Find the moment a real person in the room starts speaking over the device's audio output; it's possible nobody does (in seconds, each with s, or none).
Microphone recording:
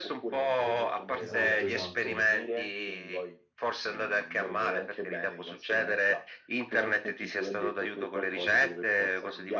1.2 s